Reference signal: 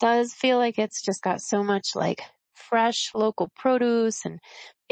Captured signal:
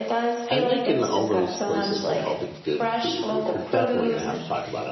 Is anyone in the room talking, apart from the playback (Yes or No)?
Yes